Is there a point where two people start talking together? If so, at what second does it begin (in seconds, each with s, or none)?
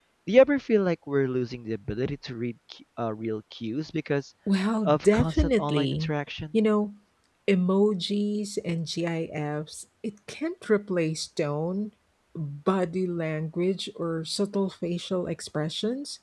4.8 s